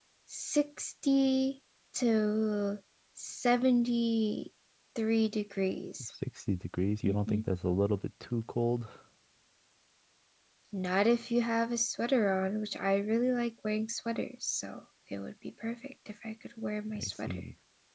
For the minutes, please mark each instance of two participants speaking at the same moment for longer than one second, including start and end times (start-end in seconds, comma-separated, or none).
none